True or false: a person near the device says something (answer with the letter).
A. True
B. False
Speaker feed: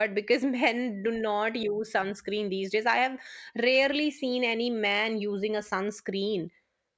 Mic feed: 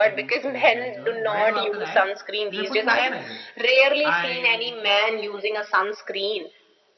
A